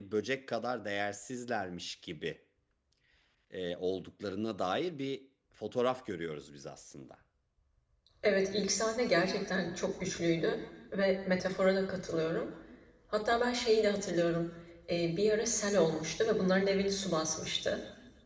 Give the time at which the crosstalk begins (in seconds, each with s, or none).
none